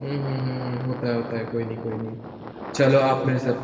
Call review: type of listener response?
taking over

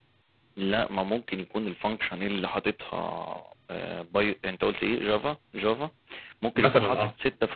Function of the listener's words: listening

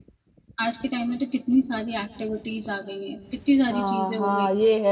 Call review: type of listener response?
taking over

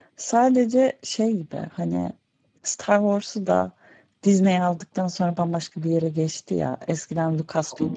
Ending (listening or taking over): listening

